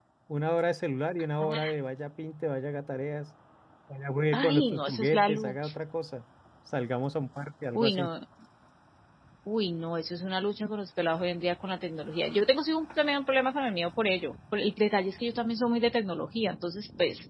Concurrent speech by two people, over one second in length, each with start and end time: 4.3-5.7

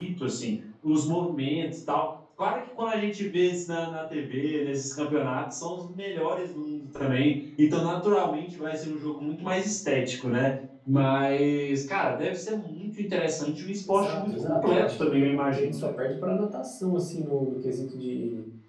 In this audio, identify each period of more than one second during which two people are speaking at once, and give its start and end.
13.9-15.9

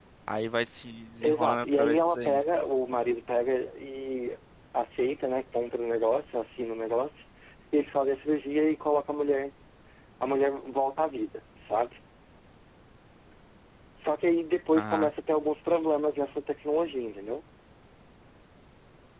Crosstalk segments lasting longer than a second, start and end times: 1.2-2.4

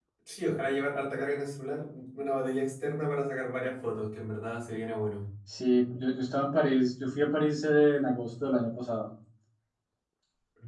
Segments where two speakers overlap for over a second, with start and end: none

